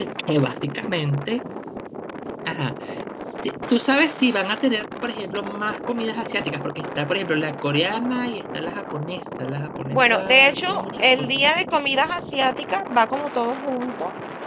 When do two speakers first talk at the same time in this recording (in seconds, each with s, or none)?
9.9 s